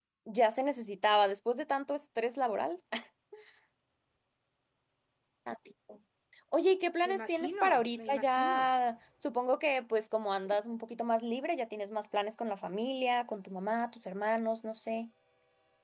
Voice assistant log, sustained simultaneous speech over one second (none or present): present